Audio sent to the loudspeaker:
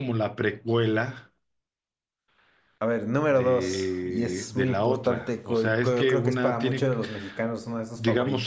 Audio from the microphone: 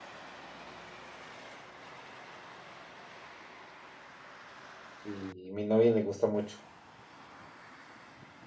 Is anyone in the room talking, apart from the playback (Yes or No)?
Yes